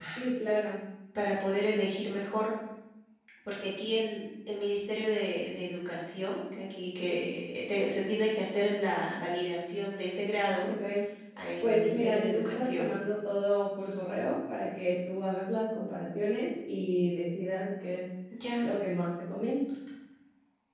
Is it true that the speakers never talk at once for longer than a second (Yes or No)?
No